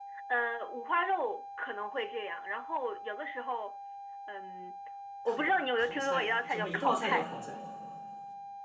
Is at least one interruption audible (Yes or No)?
Yes